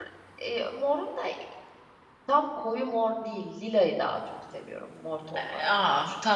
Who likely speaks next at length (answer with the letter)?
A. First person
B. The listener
B